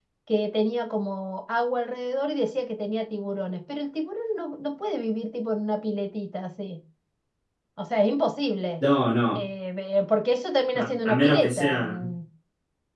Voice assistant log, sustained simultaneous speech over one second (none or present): present